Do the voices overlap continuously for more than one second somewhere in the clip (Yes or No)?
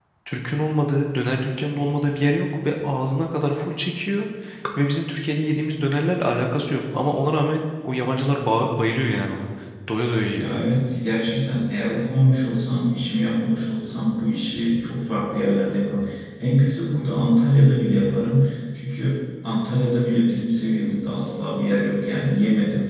No